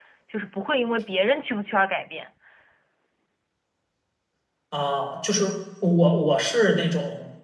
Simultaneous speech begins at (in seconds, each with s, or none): none